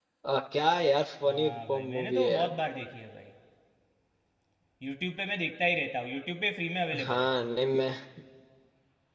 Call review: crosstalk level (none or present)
present